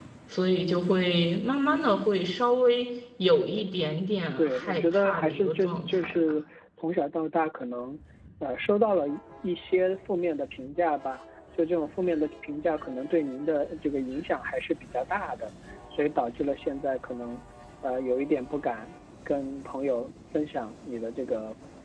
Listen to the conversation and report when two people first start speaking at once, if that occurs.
4 s

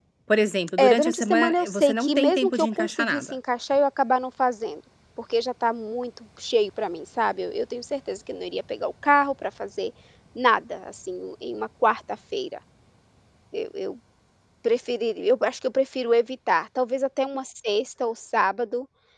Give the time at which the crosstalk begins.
1 s

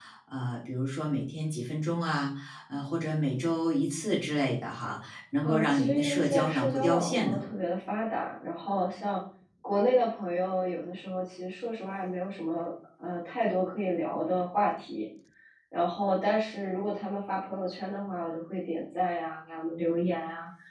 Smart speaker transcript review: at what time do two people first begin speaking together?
5 s

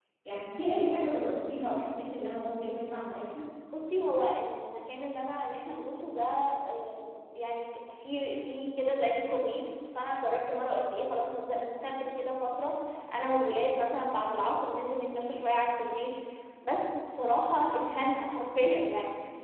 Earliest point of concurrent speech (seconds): none

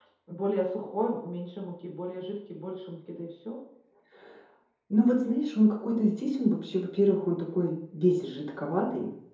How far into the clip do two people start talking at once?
none

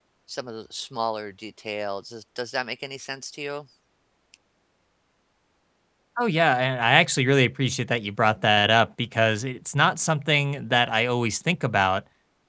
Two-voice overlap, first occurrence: none

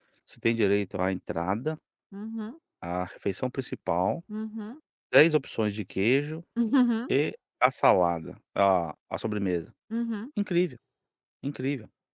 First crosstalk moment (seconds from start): none

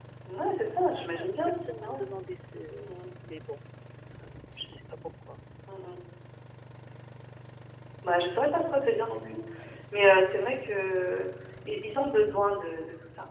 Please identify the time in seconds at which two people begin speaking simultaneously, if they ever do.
1 s

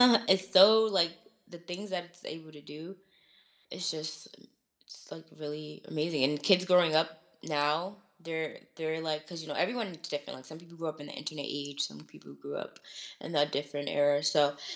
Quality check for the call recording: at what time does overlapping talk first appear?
none

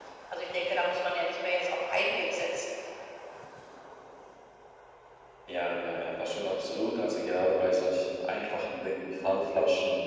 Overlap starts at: none

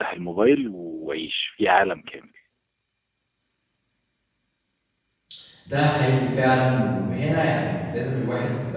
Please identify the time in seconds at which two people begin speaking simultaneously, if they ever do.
none

